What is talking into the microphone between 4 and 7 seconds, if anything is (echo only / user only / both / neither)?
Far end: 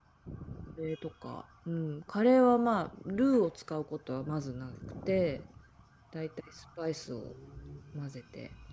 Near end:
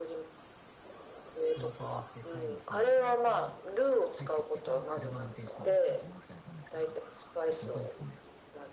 both